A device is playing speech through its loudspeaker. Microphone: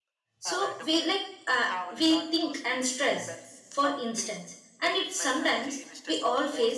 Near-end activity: present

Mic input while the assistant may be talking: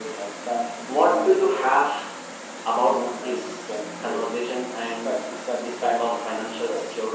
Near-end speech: none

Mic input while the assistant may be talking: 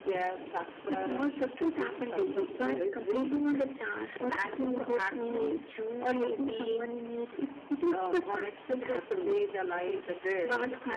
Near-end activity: none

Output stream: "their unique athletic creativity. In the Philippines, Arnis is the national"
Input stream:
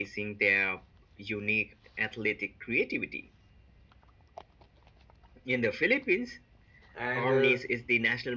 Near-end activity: present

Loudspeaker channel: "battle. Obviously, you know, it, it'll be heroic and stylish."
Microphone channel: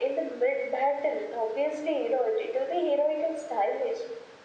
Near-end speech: none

